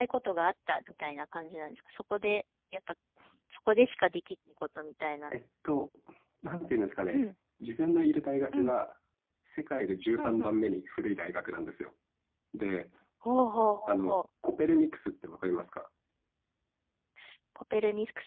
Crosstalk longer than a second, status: none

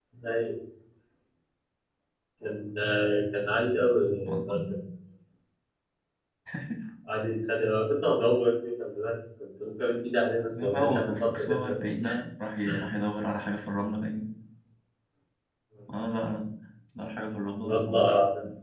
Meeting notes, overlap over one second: present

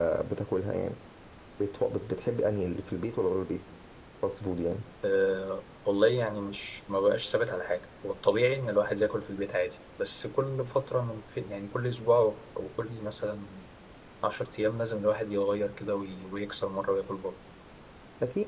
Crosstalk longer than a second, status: none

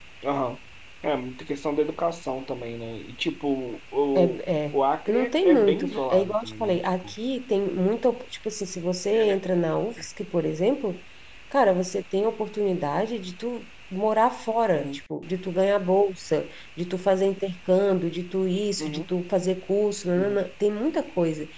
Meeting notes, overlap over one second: present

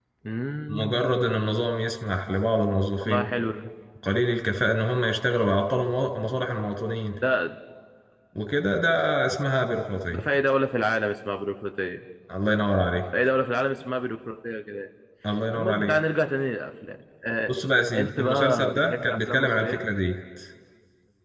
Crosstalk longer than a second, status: present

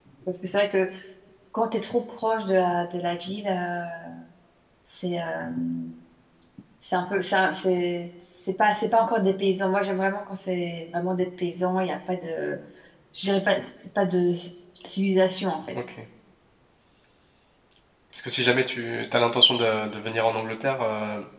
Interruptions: none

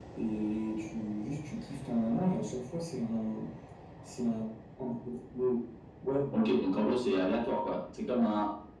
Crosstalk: none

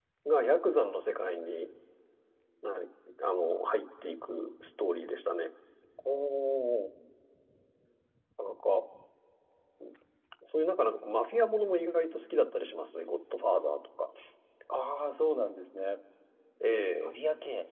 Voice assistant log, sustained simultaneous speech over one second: none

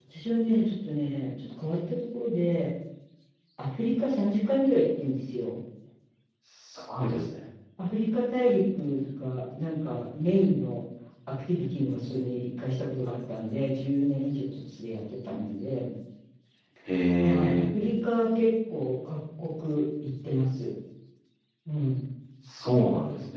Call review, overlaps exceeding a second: none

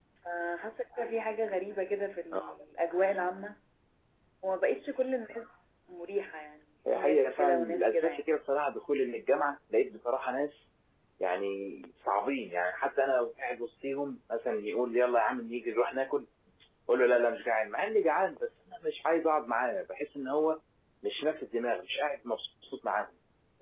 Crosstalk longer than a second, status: present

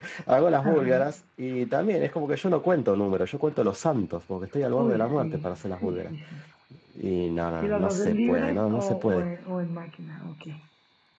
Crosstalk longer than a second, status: present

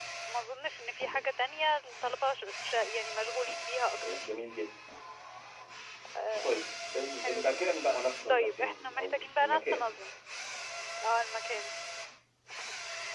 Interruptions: present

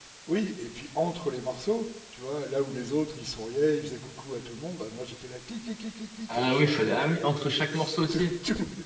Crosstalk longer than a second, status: present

